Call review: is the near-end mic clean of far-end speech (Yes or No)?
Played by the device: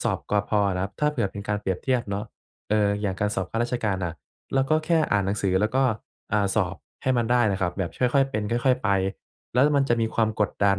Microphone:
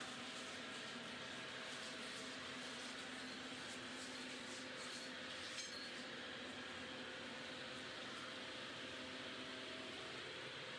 Yes